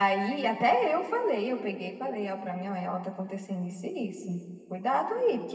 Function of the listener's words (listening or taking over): listening